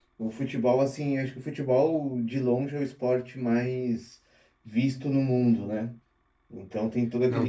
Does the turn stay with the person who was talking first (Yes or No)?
No